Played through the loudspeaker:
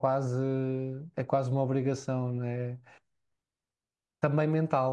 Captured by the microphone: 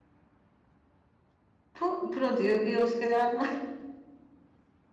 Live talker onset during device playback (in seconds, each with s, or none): 1.7 s